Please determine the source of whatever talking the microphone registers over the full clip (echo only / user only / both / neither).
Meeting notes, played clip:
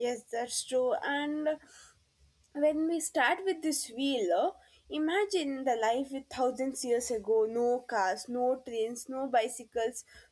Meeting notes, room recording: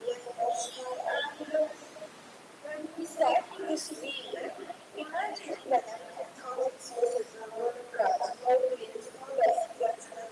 echo only